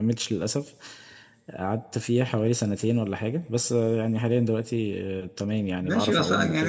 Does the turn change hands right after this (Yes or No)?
Yes